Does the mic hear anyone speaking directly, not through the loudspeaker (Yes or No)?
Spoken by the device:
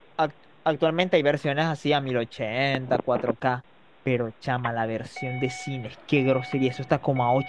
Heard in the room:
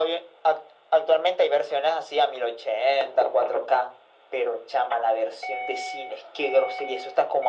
No